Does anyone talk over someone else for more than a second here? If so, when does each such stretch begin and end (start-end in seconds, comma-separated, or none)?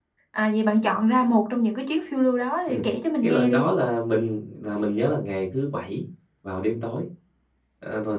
none